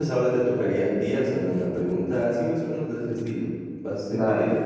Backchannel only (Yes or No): No